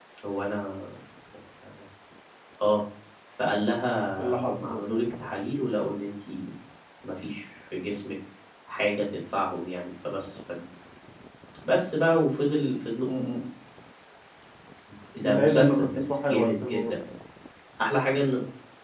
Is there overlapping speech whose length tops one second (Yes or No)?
Yes